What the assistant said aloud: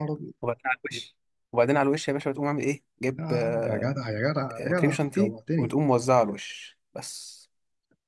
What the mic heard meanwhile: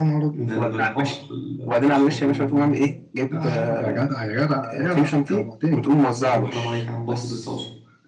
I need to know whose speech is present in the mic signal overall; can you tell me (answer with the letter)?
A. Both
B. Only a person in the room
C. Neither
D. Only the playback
A